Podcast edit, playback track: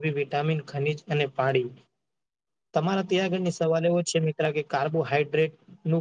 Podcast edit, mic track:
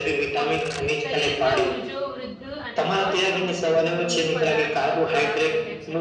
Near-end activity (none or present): present